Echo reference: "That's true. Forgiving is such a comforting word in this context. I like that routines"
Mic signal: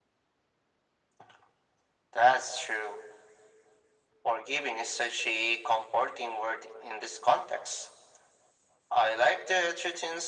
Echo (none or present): present